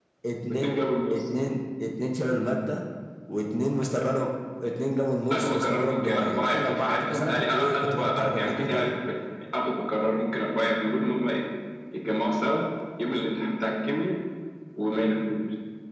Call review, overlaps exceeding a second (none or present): present